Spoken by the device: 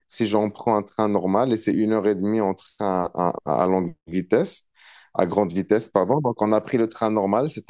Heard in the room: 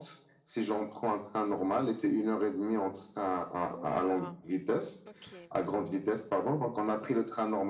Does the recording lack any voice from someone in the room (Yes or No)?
No